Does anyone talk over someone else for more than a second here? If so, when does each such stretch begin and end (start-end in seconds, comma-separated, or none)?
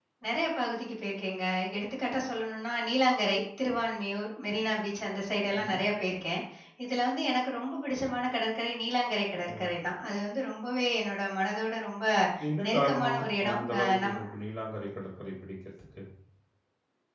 12.7-14.2